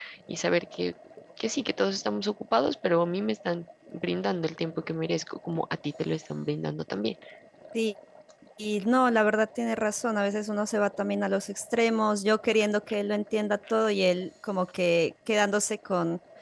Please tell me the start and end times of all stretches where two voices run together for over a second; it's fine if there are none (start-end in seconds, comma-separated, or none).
none